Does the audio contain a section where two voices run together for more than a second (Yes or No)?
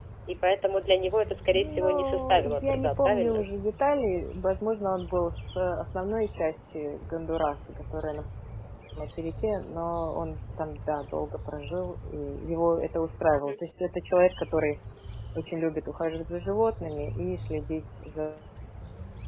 Yes